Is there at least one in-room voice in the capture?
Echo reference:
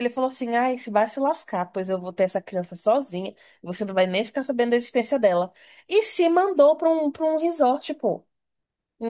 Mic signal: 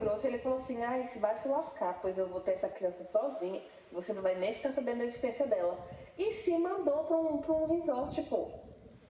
No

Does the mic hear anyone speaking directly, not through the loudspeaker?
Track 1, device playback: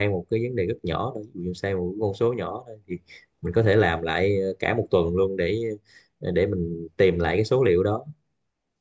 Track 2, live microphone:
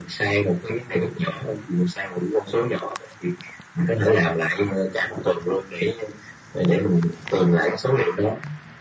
No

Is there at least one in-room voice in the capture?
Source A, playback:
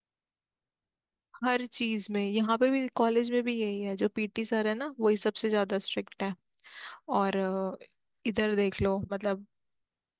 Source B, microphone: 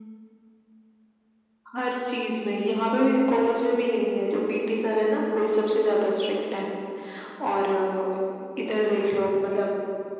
No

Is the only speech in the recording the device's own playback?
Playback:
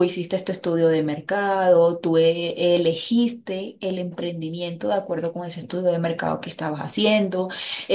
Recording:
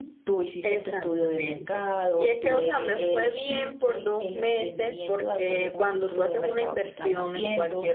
No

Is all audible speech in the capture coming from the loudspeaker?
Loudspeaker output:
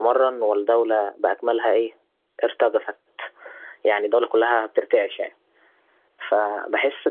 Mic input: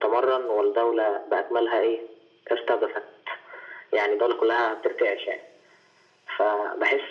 Yes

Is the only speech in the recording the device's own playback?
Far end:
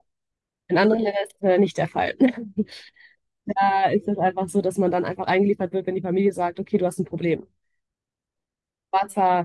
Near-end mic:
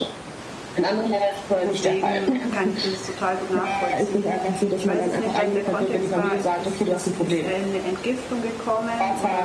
No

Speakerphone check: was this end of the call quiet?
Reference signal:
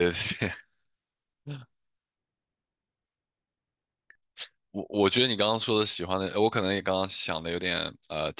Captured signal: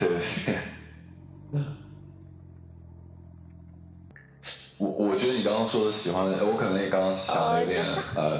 No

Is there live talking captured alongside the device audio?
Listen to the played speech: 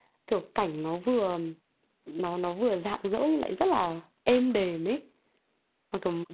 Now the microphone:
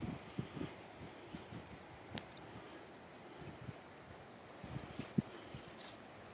No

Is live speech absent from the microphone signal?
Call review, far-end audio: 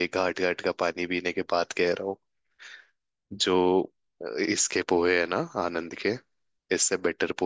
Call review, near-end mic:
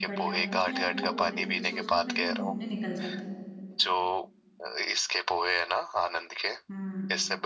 No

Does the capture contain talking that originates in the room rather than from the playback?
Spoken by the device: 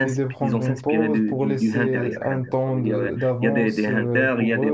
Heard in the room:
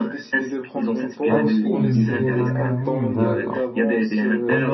Yes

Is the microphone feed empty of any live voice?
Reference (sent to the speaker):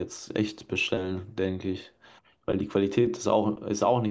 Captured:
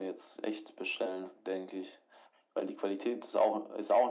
Yes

